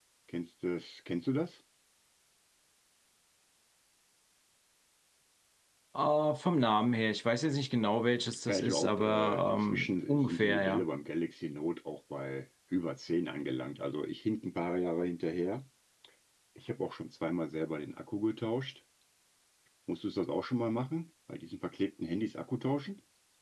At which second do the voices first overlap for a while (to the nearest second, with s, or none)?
8 s